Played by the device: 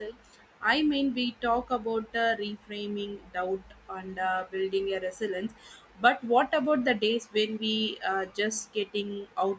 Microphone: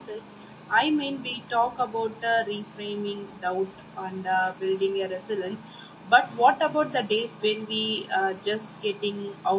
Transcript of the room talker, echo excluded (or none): none